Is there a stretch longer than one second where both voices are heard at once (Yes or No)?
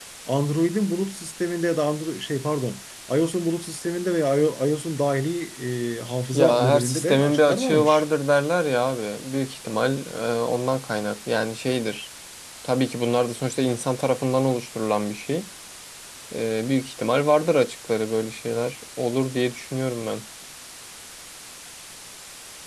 Yes